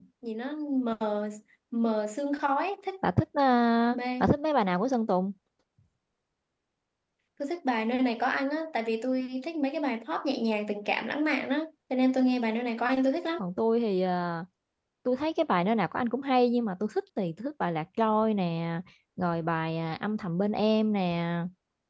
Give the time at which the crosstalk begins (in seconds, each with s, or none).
none